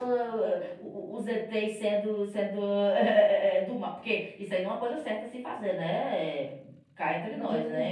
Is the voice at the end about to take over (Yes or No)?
Yes